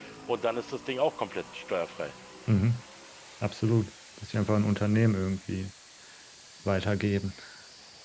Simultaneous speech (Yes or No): No